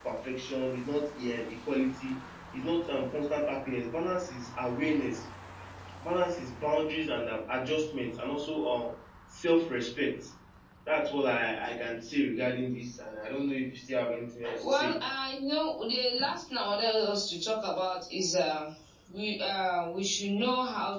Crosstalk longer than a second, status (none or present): none